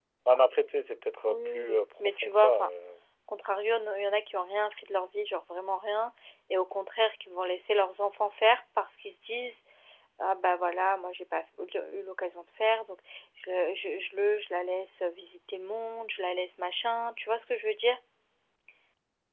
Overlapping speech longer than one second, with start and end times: 1.2-2.7

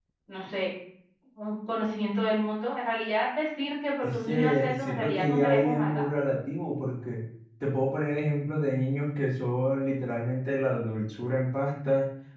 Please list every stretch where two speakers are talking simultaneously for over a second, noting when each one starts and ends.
4.0-6.0

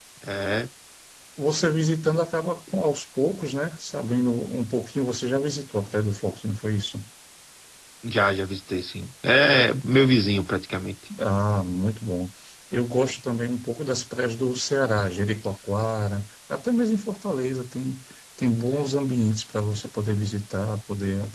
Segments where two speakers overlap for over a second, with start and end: none

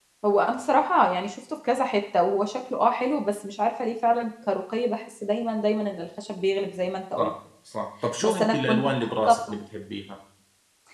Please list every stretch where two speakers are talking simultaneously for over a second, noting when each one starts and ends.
8.2-9.5

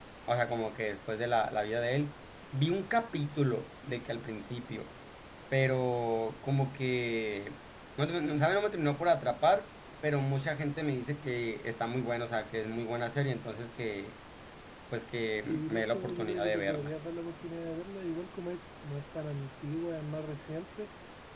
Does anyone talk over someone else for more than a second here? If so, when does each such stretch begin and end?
15.4-16.9

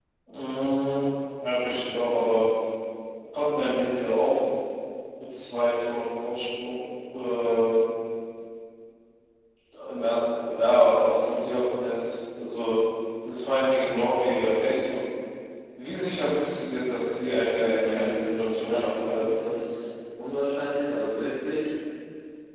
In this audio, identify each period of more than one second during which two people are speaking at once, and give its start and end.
17.6-19.3

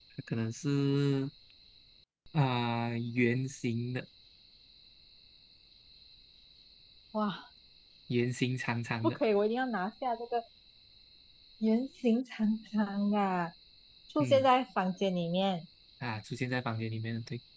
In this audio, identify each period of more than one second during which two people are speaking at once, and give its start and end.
none

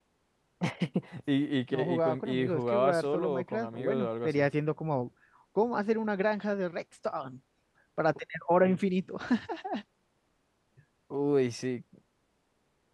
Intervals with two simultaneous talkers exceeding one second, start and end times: 1.7-4.4

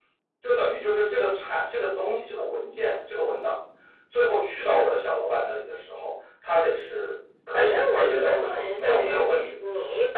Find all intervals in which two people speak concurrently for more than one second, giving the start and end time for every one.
7.5-9.5

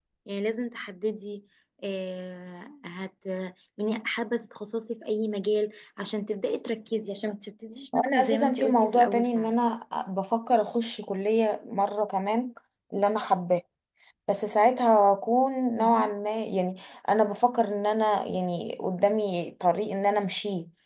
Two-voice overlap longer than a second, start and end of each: 7.9-9.6

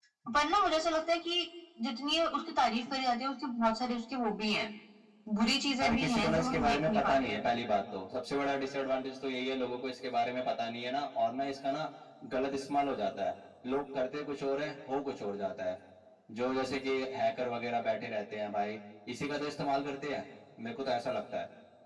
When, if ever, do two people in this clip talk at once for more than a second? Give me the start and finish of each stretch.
5.8-7.4

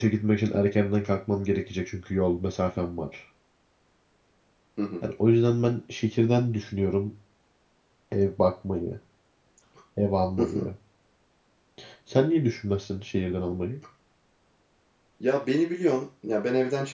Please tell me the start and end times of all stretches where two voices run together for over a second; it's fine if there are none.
none

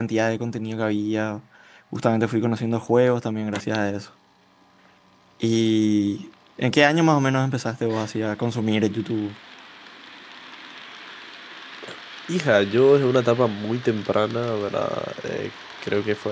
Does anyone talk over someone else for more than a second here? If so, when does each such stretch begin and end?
none

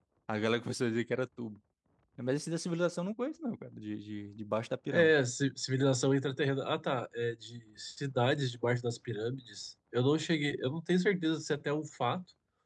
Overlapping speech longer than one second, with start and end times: none

